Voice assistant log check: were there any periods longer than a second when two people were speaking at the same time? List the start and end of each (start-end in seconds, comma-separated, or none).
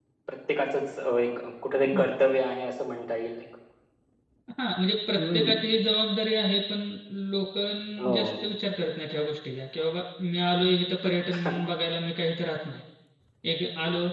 none